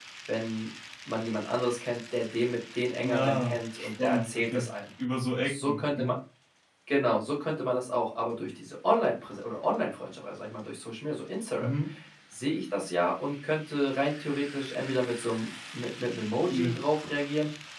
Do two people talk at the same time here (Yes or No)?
Yes